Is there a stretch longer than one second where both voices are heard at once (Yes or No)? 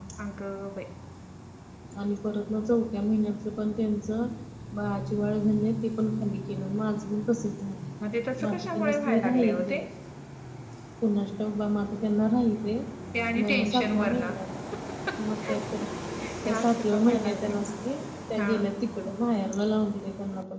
Yes